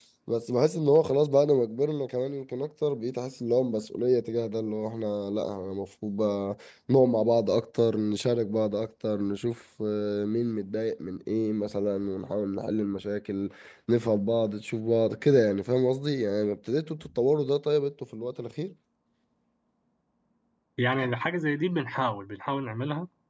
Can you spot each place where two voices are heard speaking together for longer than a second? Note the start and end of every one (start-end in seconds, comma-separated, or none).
none